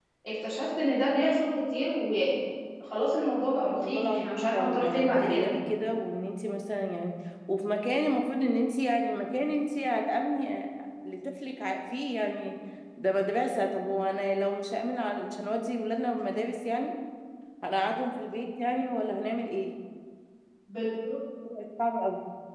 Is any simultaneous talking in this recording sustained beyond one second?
Yes, from 3.6 s

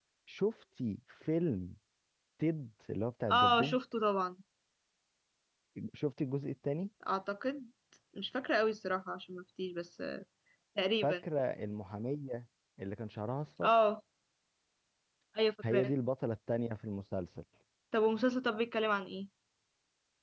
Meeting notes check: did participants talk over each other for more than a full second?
No

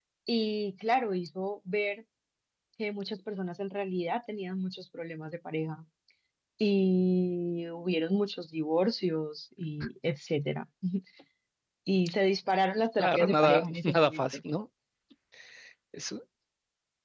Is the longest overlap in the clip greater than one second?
Yes, from 13.0 s

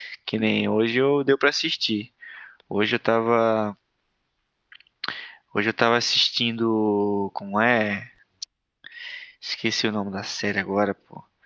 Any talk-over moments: No

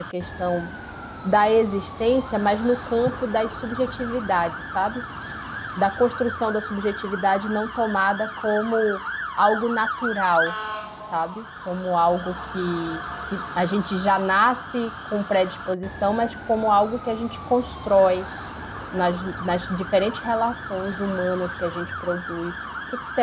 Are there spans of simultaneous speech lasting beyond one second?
No

